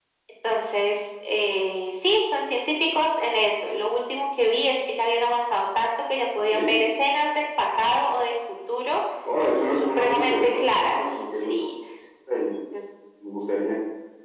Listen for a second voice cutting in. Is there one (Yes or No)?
Yes